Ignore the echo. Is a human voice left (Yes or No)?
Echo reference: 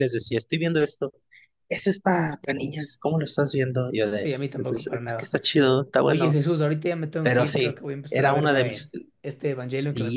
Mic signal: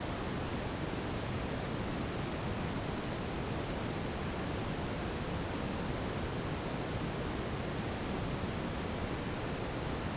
No